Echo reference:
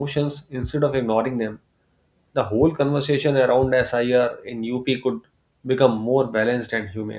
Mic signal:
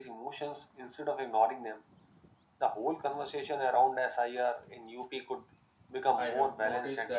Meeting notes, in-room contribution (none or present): present